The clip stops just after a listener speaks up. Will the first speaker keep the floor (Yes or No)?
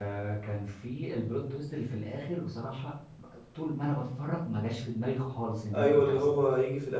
No